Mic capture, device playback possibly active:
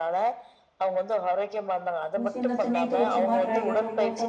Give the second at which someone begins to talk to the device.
2.2 s

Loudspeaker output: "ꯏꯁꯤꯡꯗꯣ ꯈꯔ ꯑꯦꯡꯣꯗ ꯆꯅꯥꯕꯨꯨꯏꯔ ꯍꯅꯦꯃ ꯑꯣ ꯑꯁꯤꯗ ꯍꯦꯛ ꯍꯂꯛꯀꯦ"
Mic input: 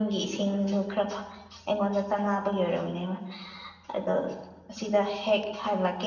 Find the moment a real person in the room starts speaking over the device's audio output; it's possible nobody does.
none

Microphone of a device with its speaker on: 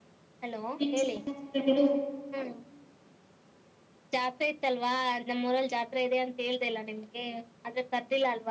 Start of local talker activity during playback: 0.8 s

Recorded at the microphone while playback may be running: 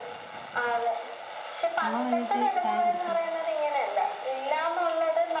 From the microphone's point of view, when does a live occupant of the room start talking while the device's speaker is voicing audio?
1.9 s

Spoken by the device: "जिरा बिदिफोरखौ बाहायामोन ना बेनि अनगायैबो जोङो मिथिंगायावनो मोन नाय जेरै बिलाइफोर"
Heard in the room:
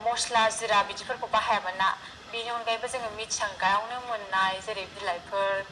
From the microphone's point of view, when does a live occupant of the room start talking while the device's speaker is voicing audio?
none

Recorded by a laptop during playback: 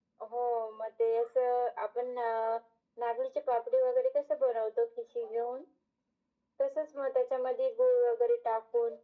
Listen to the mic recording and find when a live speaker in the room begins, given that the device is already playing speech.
none

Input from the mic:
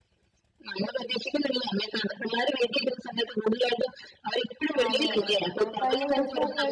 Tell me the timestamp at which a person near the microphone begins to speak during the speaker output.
4.8 s

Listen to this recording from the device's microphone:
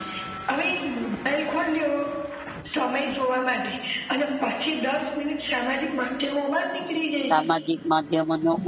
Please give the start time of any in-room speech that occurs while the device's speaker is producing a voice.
7.3 s

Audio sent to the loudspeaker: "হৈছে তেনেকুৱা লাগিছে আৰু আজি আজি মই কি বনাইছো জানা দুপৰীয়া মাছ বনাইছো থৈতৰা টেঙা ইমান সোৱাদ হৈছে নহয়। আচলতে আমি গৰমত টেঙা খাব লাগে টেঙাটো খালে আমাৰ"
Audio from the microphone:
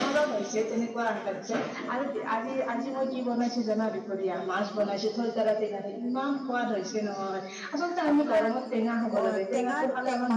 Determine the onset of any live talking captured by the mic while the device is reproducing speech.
8.1 s

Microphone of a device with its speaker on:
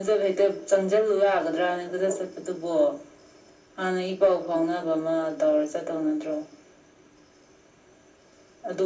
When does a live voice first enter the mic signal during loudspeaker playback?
none

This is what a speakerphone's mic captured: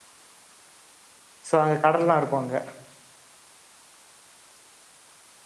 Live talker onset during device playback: 1.5 s

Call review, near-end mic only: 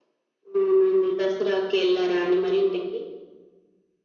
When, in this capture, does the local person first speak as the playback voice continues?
none

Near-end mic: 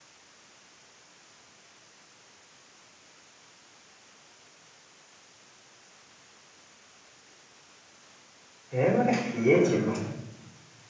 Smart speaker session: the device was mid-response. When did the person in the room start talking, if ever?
8.8 s

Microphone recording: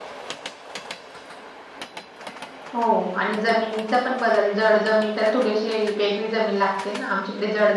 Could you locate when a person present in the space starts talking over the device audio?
2.7 s

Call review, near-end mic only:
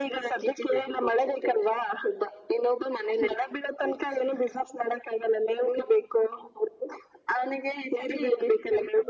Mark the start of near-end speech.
none

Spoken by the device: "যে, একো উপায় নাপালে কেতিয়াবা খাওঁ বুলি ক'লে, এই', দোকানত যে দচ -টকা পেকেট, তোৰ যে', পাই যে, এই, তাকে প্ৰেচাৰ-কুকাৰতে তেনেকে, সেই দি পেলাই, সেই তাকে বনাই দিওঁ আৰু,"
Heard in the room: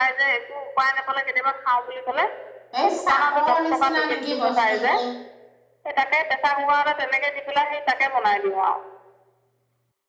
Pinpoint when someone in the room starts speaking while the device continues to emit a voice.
2.8 s

